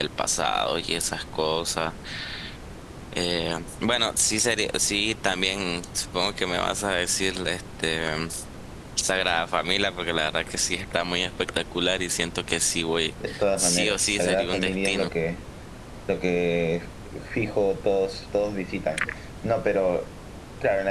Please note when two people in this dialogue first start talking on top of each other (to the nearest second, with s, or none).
13 s